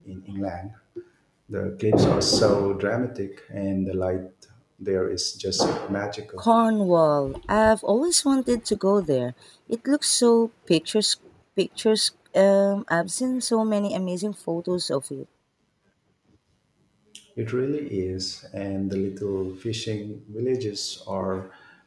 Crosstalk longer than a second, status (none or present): none